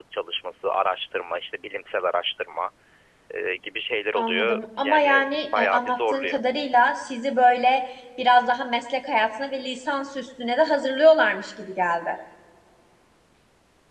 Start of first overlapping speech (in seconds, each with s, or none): 4.1 s